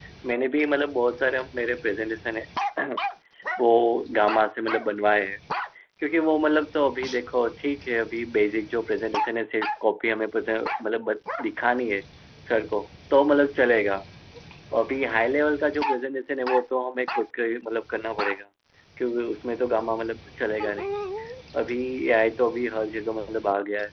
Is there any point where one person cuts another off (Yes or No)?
No